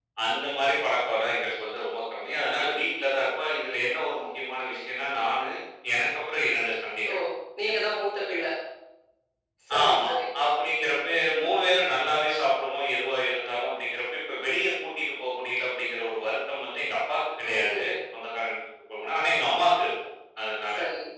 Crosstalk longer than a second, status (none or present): none